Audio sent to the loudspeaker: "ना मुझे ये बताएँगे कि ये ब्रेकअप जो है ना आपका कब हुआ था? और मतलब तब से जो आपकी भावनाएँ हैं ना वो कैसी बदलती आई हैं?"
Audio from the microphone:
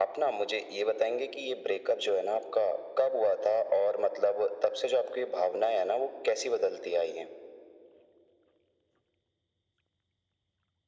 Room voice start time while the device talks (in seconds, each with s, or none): none